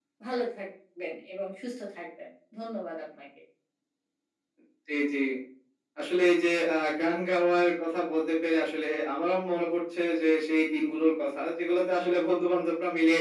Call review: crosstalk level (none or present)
none